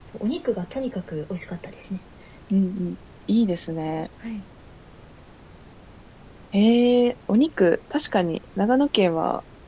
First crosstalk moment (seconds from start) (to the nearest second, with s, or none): none